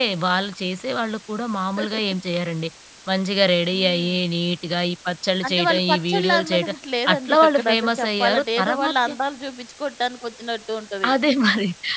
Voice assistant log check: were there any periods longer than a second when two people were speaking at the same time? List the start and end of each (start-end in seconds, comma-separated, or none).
5.5-6.7, 7.1-9.1